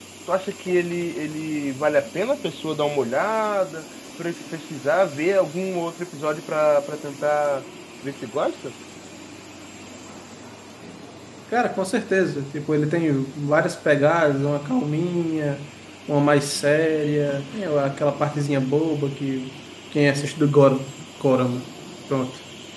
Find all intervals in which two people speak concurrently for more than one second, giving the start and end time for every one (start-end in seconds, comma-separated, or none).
none